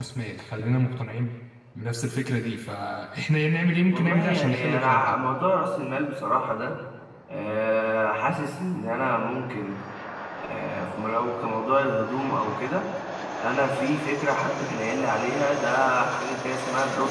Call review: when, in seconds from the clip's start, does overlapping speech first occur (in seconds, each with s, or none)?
3.9 s